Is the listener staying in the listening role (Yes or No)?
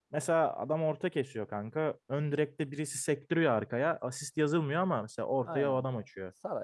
No